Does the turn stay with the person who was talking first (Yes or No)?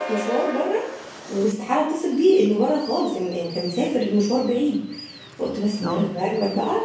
Yes